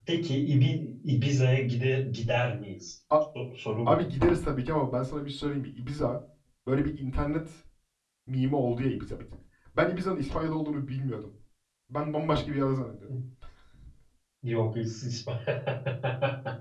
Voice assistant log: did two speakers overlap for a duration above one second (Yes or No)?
No